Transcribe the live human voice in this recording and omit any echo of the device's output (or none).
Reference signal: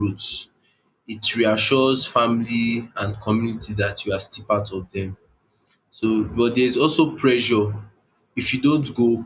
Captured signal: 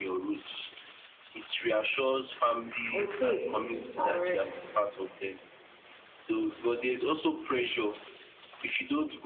Okay. All right.